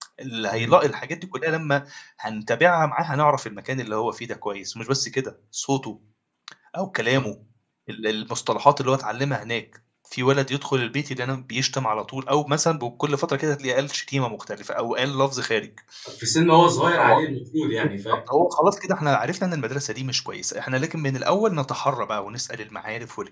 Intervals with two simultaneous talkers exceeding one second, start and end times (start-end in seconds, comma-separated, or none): none